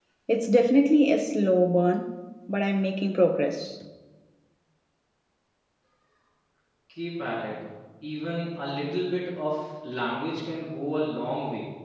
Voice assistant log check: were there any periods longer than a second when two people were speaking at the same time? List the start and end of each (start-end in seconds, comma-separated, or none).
none